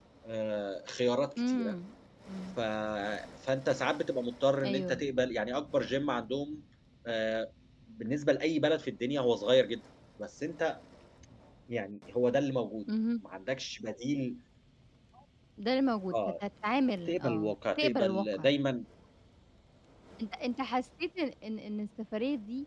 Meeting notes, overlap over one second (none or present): present